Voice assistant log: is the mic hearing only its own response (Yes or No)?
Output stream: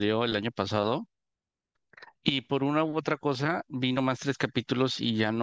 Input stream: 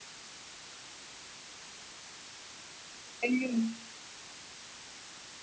No